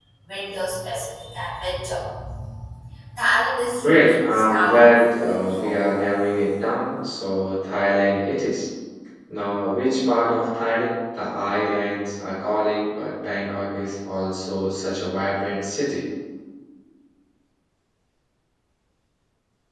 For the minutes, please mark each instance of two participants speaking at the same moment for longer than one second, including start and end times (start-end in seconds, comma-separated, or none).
3.8-5.9